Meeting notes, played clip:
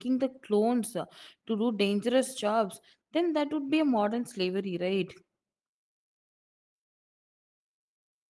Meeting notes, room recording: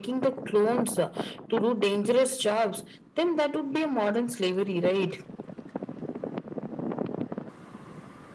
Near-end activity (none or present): none